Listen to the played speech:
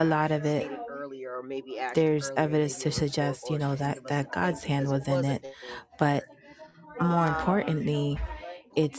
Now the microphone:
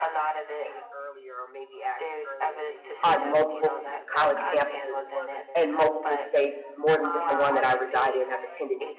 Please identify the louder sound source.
user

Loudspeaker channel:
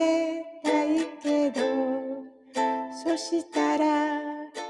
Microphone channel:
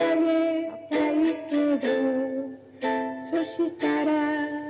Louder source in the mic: echo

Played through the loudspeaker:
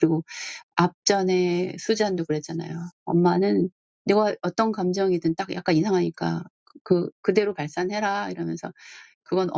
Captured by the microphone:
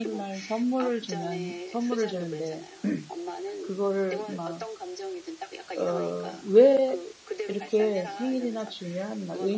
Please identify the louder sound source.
user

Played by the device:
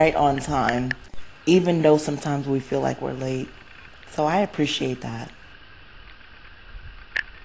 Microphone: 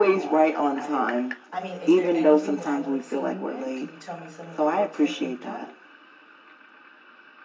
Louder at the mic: echo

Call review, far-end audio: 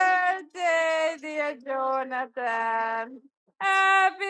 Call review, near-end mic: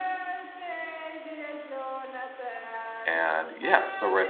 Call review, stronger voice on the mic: user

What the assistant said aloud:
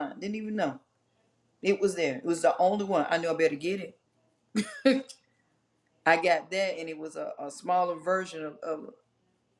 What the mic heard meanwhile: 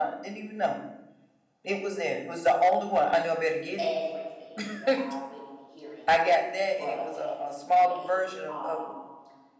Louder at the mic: echo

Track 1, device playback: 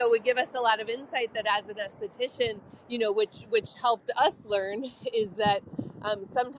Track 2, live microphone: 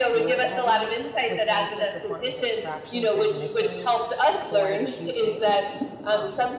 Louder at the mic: echo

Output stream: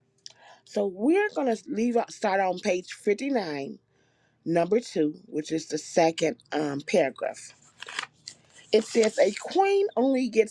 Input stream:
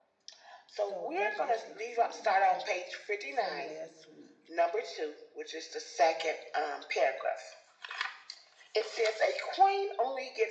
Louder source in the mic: echo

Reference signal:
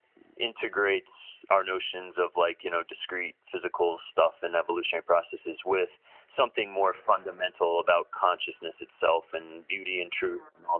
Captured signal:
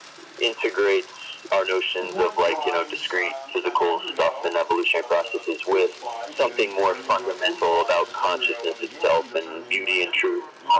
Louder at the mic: echo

